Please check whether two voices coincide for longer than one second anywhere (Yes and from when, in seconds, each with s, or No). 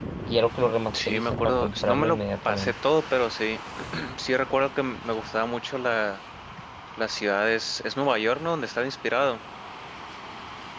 Yes, from 1.1 s